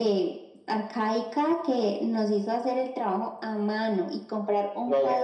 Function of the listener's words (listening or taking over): listening